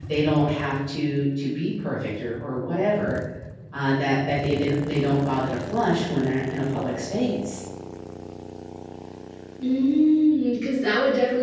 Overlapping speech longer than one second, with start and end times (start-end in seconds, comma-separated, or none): none